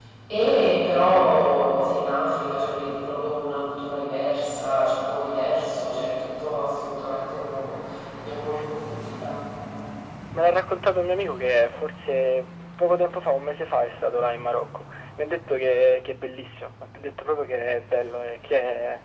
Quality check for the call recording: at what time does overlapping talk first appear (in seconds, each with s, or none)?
none